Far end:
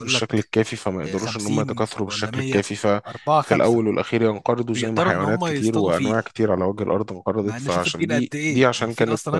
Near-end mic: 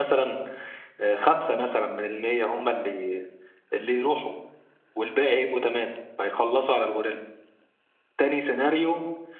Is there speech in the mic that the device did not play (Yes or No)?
Yes